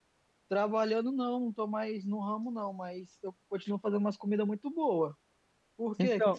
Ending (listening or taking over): taking over